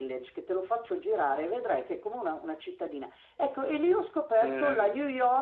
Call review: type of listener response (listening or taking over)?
listening